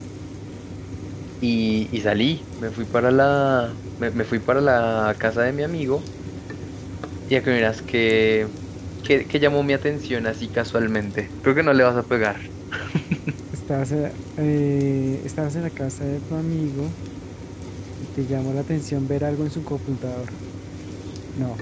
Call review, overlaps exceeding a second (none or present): none